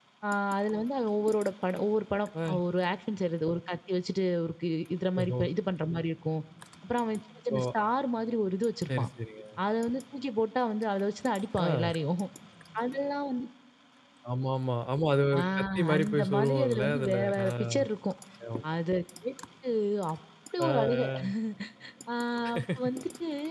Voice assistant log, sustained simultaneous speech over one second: present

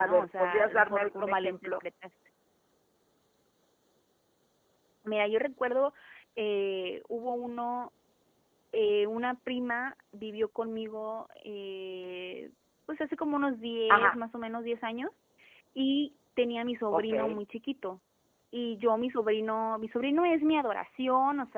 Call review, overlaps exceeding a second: present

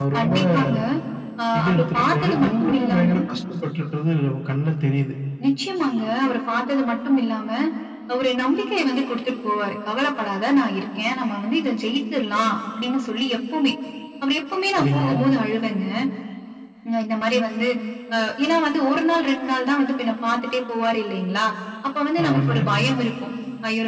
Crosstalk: present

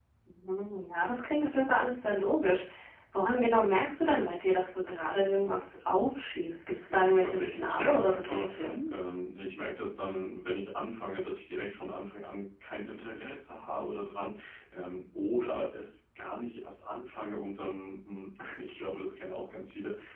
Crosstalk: present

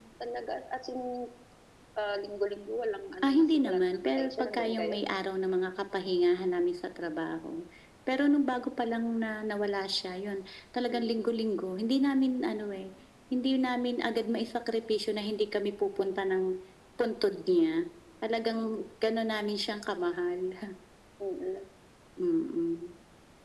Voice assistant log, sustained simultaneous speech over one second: present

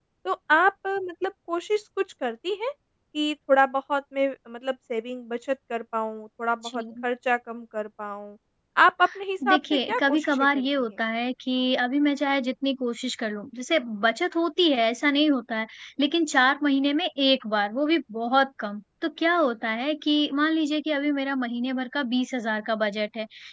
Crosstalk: present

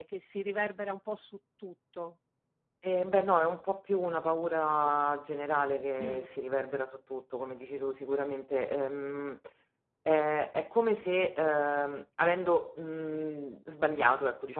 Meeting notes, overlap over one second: none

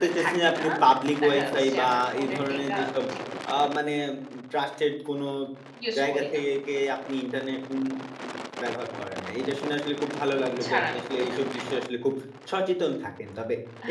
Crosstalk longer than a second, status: present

